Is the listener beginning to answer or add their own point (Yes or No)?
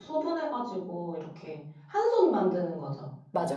Yes